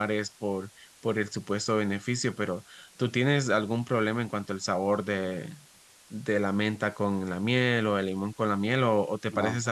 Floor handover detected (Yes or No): No